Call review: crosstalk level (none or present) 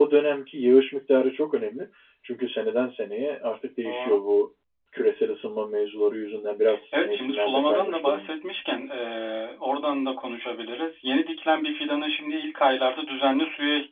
present